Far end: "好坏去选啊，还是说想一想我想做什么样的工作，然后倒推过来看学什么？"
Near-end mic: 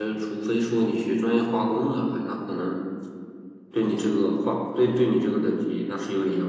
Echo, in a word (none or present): none